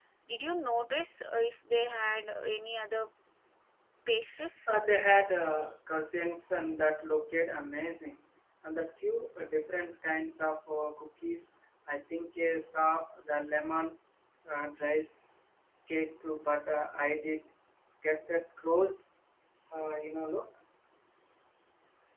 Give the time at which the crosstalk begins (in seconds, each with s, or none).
none